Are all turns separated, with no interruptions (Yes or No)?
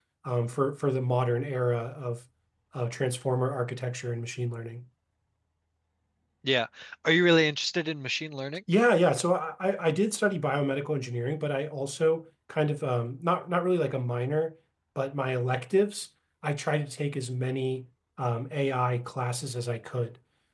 Yes